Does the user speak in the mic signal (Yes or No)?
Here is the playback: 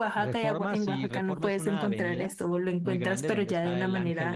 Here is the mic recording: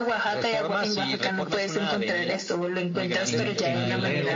Yes